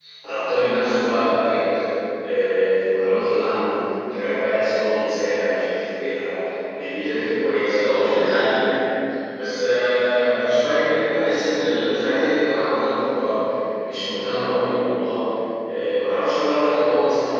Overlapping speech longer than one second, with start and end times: none

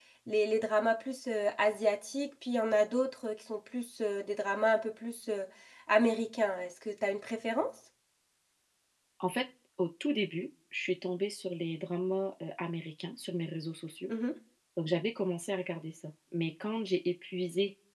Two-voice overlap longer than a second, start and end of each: none

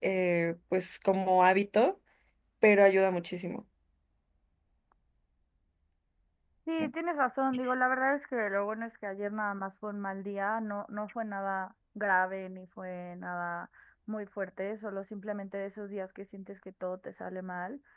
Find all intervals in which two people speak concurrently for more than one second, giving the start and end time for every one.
none

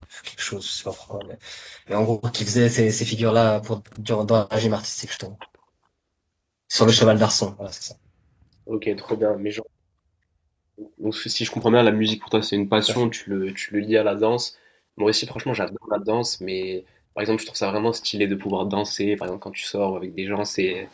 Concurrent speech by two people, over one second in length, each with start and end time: none

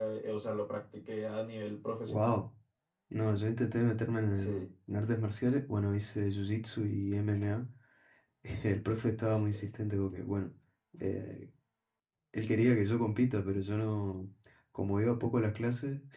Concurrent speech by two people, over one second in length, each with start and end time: none

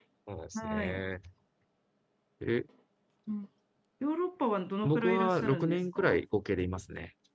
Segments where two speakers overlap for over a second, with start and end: 4.8-6.2

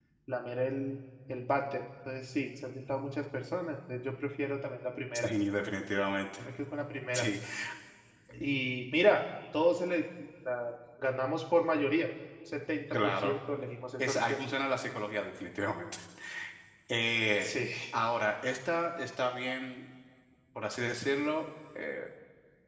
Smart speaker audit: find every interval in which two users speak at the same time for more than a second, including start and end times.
none

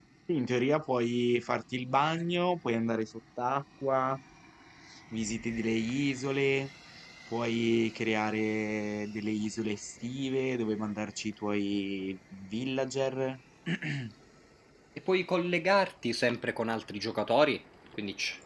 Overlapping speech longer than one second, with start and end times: none

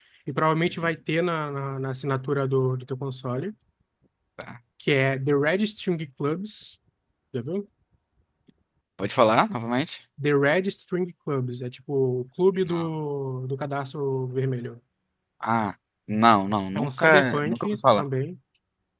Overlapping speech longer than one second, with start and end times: 16.8-18.0

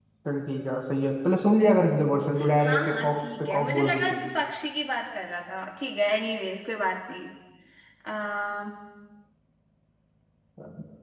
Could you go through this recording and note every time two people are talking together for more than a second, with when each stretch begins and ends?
2.6-4.2

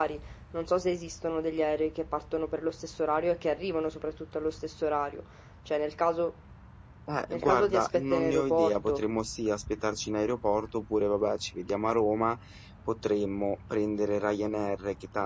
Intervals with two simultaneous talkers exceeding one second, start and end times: 7.3-9.0

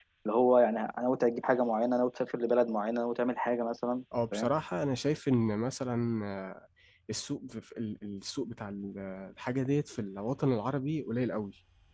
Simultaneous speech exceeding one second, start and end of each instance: none

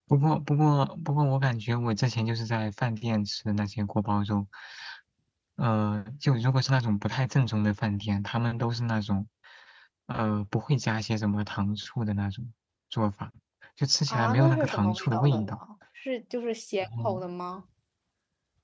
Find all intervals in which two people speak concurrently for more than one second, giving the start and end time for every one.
14.1-15.6

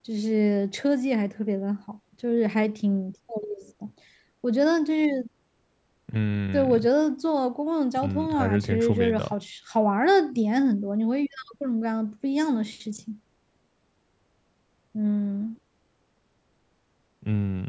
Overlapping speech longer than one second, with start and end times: 8.0-9.3

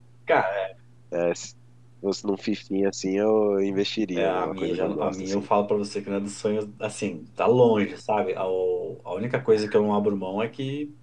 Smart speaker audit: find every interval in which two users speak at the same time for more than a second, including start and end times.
4.1-5.5

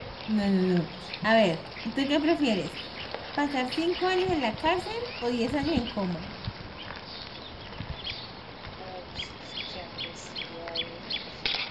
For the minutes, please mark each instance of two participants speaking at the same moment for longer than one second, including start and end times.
none

